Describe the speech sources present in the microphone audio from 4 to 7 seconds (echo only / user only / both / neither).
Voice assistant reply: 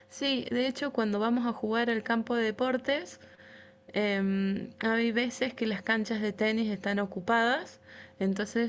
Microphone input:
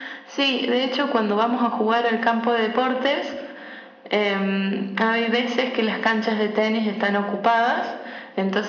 echo only